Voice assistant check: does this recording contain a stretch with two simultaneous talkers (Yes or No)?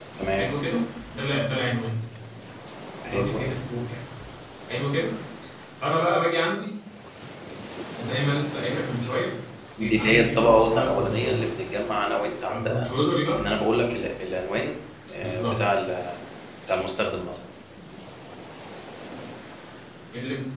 Yes